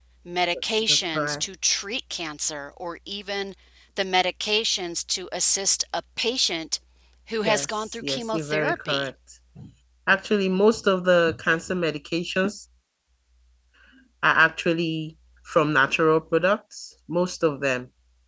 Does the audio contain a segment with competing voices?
Yes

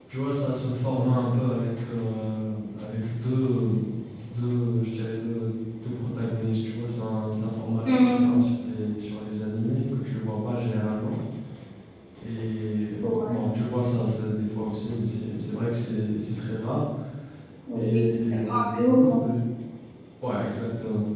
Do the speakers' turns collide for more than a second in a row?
Yes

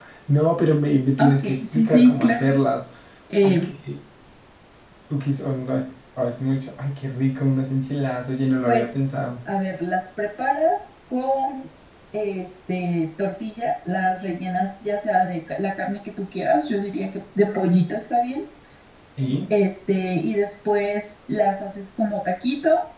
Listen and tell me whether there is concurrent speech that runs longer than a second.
Yes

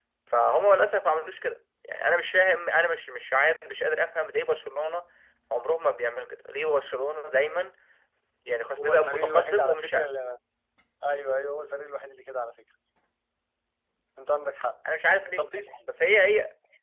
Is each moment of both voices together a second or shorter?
No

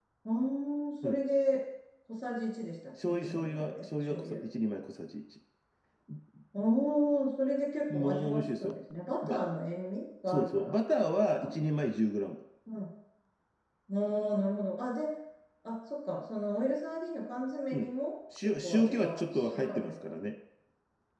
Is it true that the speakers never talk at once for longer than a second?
No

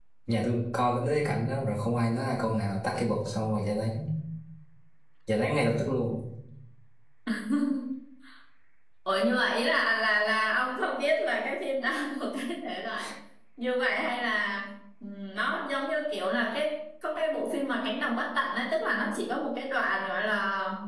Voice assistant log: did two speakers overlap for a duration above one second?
No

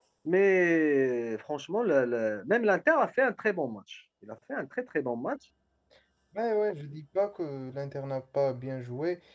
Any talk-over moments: No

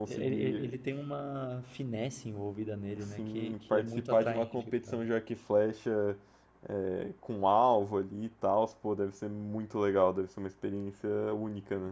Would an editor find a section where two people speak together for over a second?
Yes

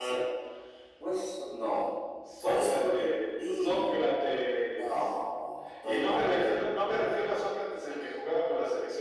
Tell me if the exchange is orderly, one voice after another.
No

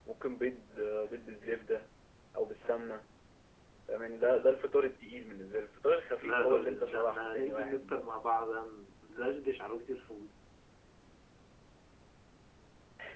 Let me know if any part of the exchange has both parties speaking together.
Yes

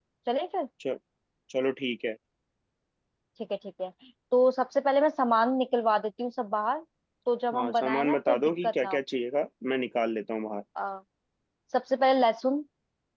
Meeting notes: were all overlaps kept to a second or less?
No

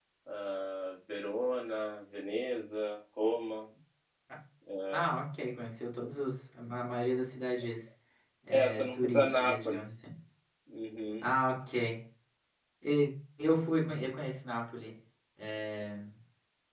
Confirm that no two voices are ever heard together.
No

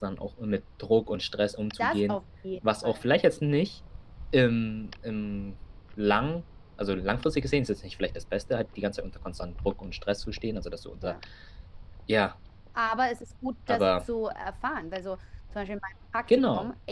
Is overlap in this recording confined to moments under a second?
Yes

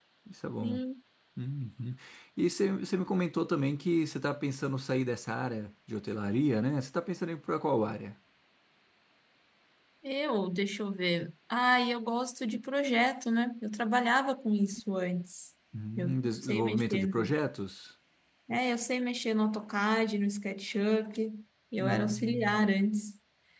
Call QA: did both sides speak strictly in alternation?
No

